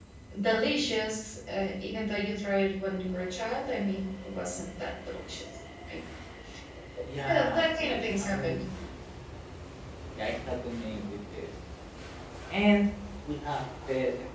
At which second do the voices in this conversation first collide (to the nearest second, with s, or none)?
7 s